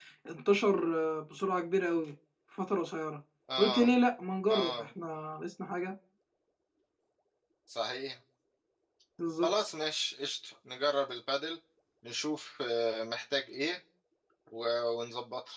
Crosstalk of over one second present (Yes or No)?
No